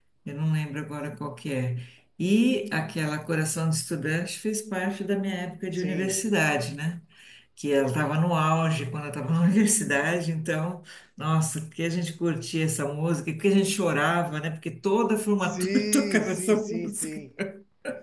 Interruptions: present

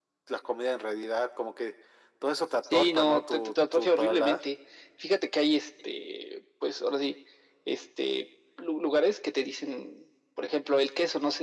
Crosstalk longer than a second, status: present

